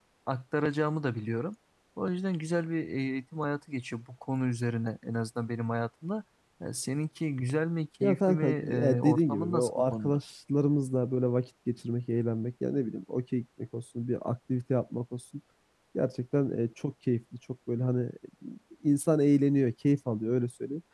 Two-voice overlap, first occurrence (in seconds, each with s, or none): 8.0 s